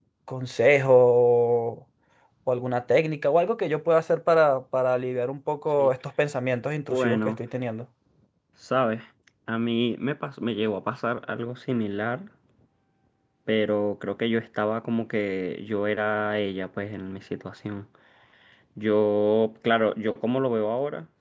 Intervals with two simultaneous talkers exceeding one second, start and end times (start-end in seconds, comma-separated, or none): none